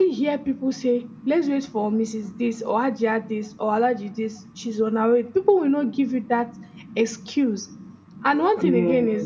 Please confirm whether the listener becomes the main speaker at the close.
No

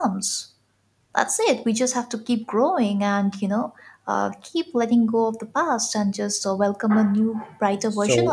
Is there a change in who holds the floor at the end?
Yes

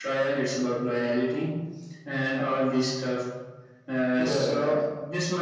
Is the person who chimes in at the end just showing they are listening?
Yes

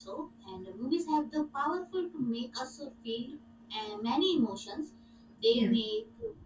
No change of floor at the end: Yes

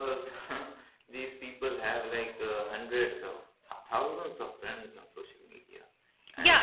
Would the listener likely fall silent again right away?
No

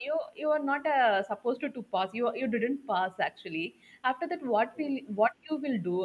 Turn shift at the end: No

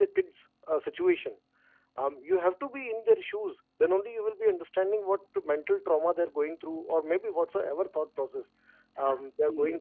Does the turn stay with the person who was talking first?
Yes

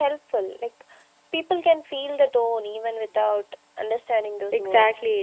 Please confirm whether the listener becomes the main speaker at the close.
Yes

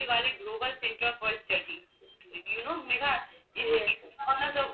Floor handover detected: No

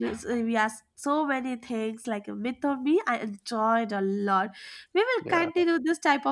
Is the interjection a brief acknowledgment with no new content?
Yes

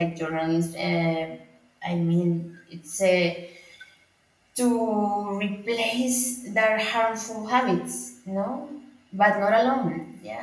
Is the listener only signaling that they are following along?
Yes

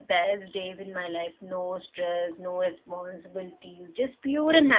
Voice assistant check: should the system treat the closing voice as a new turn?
Yes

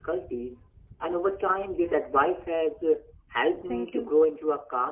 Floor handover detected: No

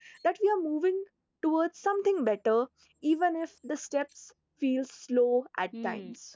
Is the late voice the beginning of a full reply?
Yes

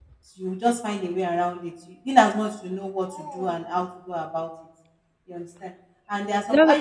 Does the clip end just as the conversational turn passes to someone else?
No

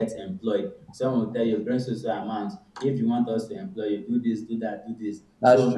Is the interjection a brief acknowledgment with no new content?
Yes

